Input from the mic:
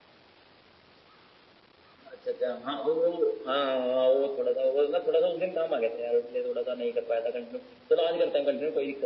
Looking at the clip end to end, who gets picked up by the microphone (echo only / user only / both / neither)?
echo only